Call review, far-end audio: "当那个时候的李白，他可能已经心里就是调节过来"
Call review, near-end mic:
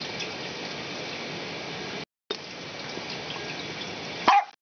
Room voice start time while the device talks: none

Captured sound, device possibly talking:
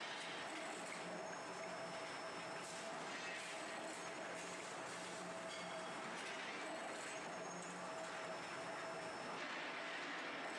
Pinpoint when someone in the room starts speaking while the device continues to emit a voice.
none

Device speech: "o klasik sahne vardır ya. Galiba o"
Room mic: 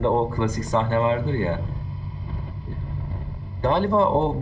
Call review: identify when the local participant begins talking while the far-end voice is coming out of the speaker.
none

